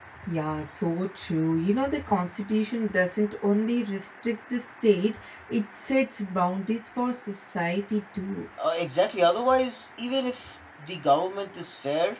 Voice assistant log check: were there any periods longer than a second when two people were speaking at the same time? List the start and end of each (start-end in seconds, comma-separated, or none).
none